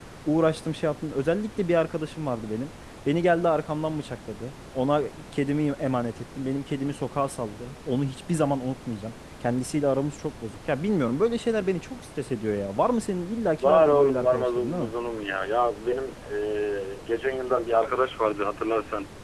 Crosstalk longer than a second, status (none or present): present